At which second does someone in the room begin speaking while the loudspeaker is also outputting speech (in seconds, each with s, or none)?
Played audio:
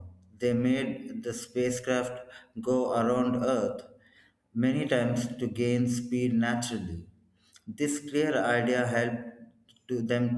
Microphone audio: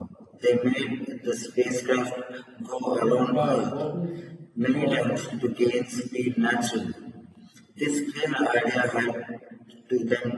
3.0 s